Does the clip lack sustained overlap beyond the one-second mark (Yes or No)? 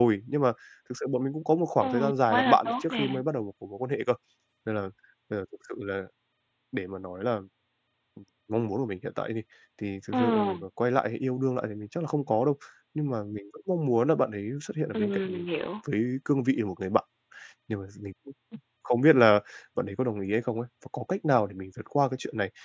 No